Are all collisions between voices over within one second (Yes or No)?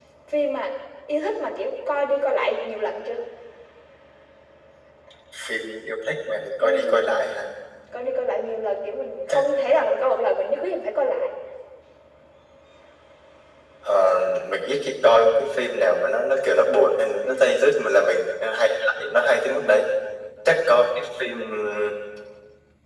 Yes